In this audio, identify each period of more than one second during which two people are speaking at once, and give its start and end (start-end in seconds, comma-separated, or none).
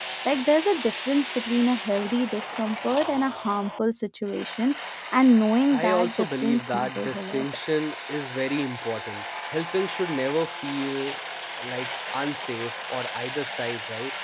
5.7-7.5